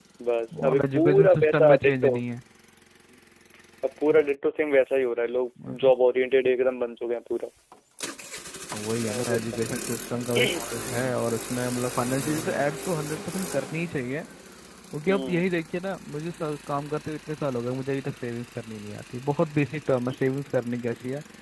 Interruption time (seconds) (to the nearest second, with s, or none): 1 s